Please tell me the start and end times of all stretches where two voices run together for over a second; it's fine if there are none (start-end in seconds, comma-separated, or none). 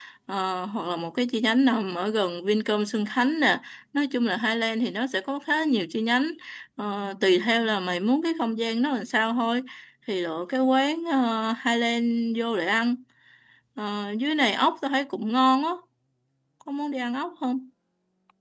none